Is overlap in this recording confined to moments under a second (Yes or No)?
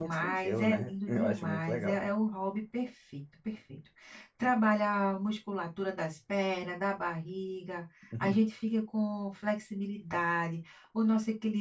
No